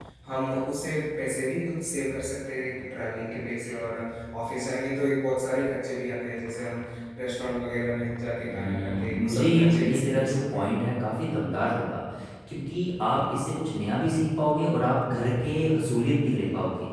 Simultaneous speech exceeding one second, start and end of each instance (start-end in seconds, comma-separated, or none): 8.5-10.8